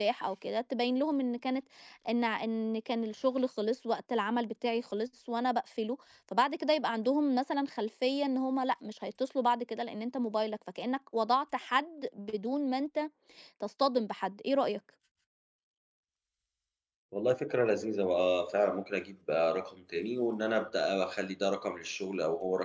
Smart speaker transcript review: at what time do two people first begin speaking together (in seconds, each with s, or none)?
none